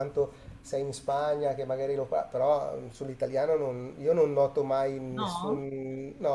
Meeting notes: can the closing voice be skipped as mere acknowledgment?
Yes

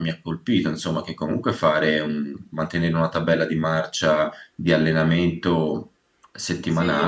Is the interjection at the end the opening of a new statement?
Yes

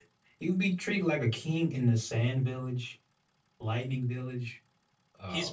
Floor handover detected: Yes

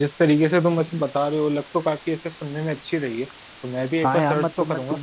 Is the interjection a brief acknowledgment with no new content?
No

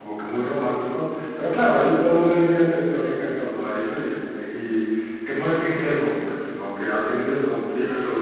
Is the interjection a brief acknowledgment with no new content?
Yes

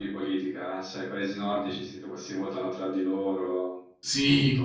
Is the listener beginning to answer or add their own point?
Yes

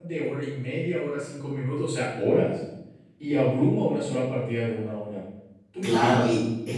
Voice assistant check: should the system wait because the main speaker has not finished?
No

